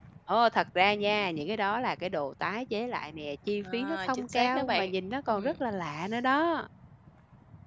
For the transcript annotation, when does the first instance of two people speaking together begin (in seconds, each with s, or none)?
3.6 s